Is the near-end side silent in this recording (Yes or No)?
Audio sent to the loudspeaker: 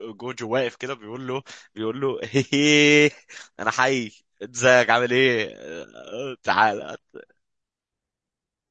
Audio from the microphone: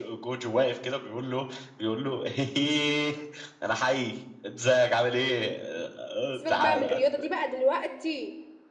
No